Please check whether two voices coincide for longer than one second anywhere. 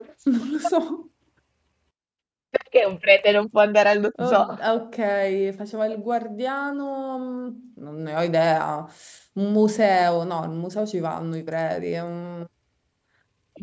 No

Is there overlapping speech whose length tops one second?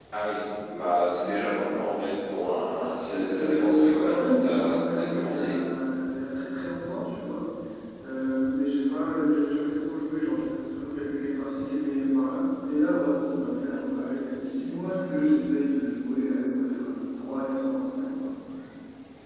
Yes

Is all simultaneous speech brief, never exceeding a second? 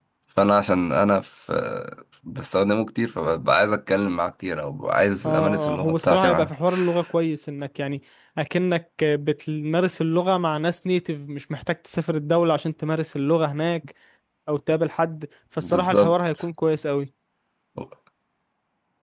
No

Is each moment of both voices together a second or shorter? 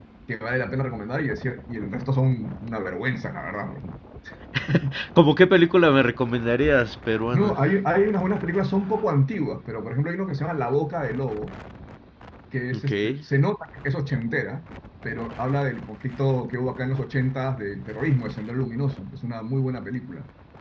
Yes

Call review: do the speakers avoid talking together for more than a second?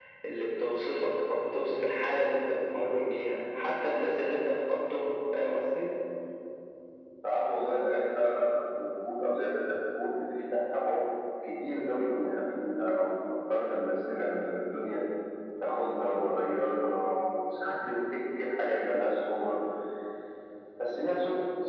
Yes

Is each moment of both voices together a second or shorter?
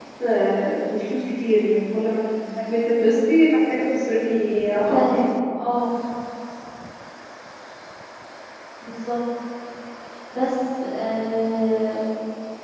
Yes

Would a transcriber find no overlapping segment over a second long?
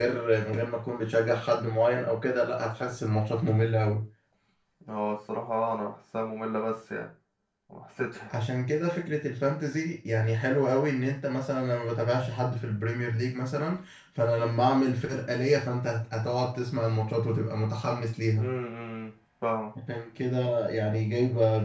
Yes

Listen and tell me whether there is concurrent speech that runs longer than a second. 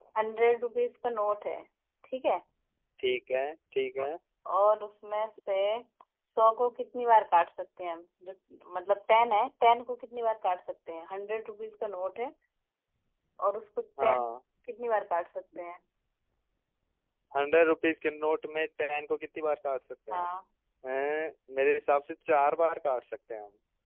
No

